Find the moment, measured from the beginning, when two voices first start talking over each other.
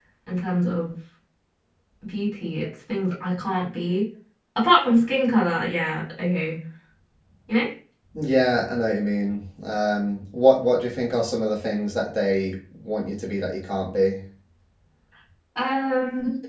none

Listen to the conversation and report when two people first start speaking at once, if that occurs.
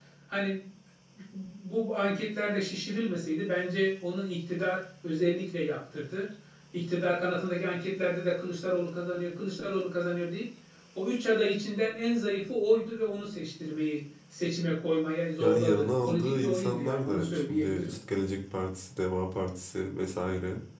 15.4 s

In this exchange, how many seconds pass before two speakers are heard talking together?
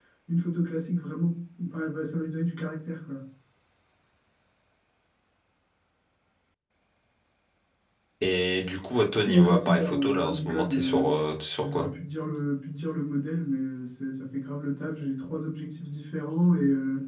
9.3 s

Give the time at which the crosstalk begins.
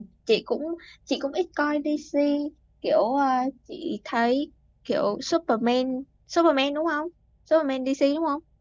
none

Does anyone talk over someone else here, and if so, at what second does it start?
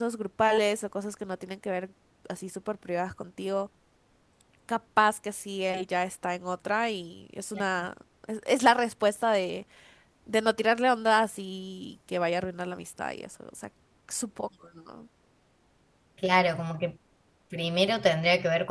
none

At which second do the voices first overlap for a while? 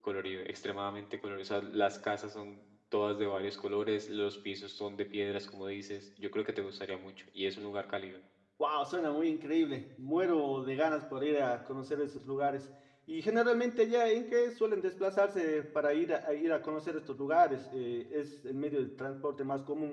none

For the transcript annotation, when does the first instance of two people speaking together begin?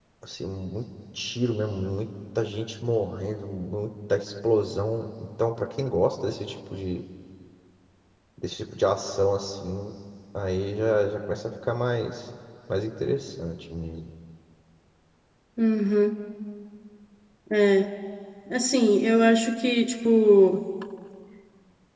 none

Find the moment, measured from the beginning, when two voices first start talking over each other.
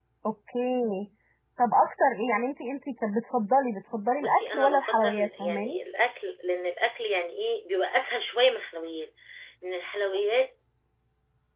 4.2 s

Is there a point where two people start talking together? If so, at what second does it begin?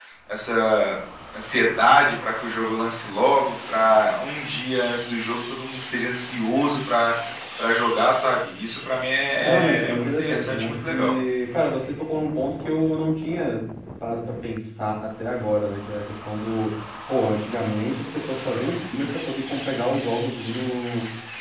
9.4 s

